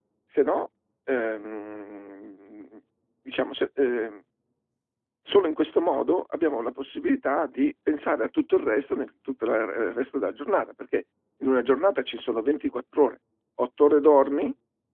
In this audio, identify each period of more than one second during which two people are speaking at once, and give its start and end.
none

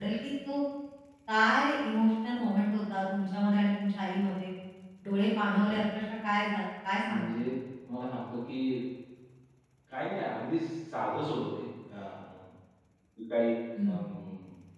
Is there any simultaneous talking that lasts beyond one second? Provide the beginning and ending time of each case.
none

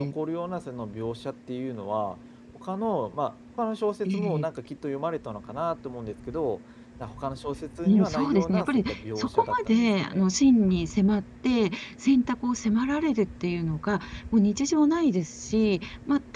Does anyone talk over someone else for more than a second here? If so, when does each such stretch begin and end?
7.8-10.2

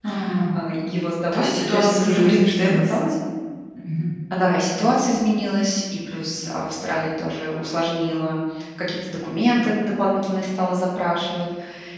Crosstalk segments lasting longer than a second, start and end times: 1.3-2.9

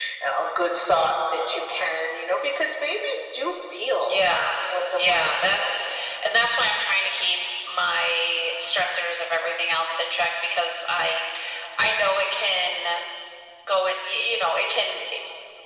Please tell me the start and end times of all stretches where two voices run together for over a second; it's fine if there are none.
4.7-6.0

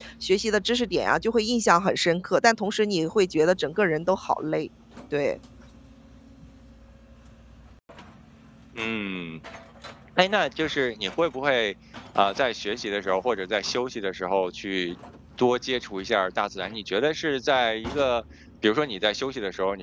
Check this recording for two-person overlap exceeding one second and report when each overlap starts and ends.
none

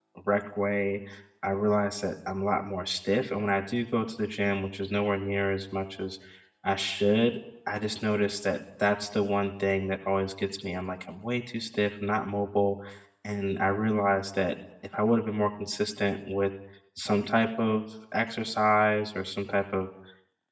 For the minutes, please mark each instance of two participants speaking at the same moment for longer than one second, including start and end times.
none

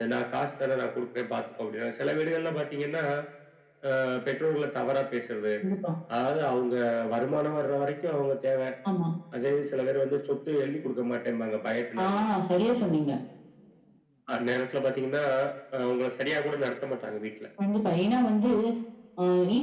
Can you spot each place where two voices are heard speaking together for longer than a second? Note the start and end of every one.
none

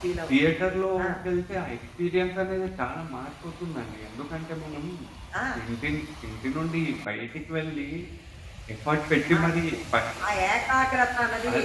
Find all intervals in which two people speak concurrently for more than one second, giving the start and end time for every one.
none

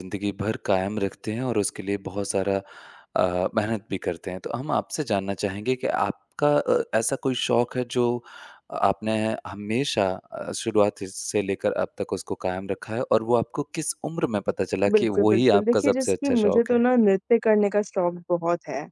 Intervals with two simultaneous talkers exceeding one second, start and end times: 14.9-16.8

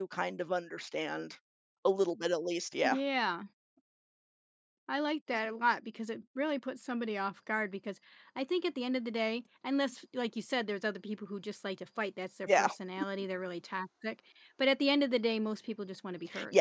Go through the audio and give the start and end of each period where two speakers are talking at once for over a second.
none

